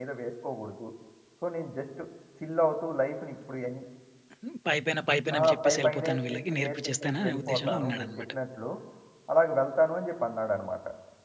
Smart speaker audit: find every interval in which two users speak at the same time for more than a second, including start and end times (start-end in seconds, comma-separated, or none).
5.4-8.2